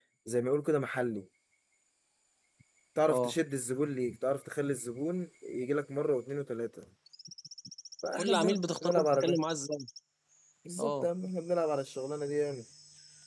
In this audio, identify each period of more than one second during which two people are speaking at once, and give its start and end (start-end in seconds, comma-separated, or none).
8.2-9.4